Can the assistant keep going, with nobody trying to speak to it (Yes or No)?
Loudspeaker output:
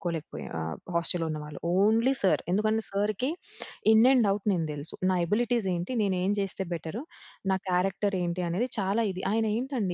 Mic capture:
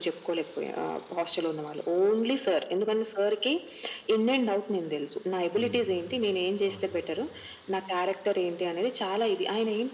No